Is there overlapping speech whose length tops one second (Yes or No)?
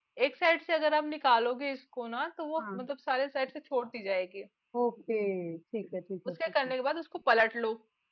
No